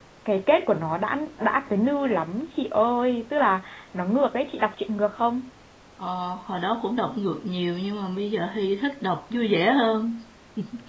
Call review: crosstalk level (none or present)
none